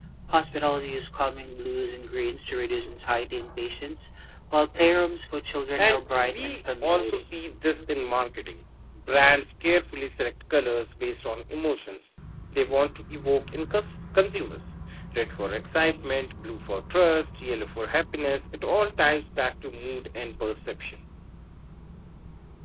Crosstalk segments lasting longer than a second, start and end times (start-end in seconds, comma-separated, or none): 5.8-7.3